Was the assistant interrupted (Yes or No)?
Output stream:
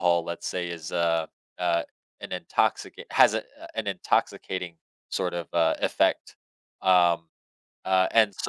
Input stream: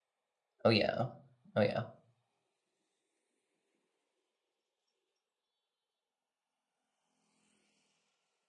Yes